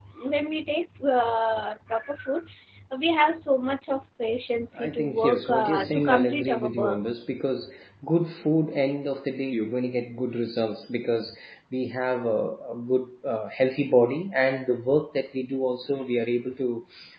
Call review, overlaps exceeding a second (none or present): present